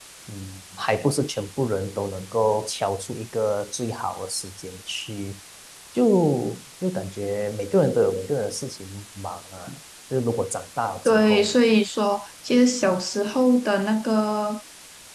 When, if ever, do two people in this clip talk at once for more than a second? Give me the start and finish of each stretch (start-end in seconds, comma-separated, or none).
none